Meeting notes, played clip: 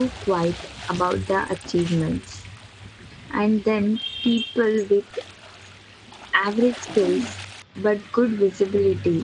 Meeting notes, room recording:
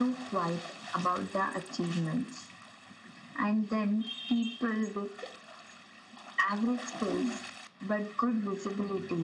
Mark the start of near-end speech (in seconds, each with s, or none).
none